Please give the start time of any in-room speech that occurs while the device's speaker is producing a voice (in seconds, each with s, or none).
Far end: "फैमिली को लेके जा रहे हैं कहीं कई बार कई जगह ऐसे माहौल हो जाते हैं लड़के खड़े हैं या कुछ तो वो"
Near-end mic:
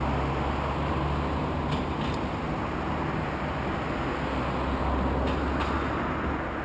none